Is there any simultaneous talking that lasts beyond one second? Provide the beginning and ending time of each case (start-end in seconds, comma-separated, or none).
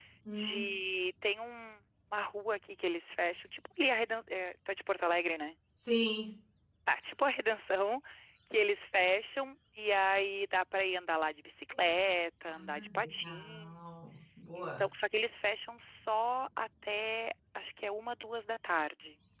12.5-13.7